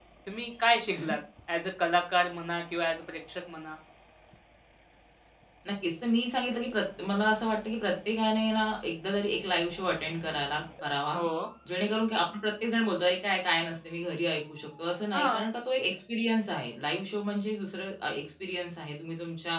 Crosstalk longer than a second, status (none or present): none